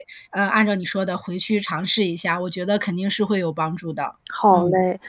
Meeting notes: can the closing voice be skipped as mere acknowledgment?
No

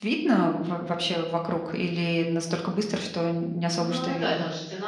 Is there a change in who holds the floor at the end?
Yes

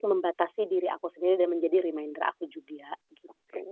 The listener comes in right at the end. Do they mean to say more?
Yes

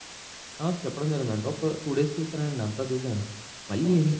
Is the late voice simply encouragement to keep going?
Yes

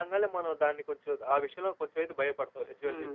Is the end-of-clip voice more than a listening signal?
Yes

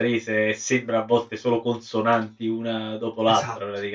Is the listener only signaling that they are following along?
No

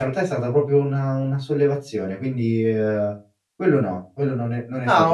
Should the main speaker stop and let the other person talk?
Yes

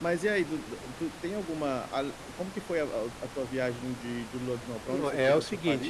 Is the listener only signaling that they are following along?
No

